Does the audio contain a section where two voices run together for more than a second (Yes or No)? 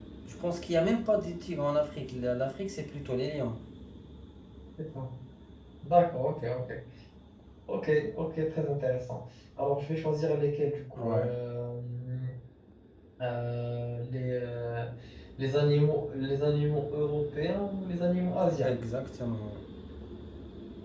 No